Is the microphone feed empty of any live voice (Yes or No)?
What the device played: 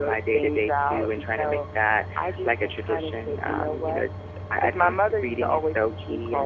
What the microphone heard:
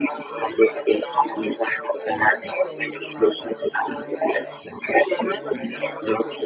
No